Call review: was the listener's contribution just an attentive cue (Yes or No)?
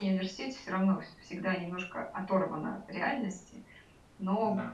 Yes